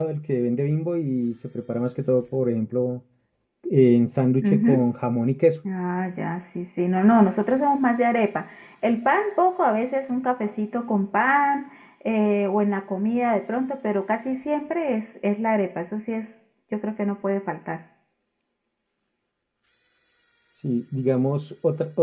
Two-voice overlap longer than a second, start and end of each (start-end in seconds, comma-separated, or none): none